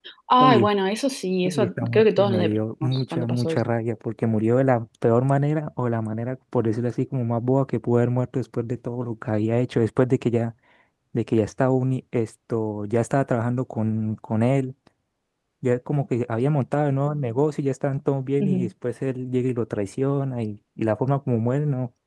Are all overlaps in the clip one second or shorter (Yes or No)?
No